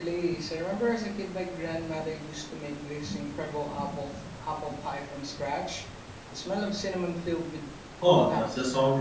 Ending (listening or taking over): taking over